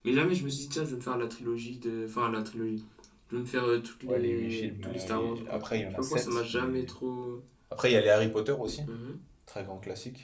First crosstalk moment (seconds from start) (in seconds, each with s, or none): 4.0 s